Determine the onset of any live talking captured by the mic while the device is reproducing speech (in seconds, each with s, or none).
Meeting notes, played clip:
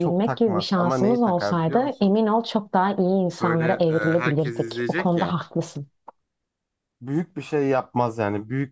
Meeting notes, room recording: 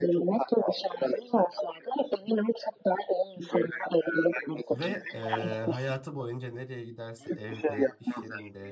4.7 s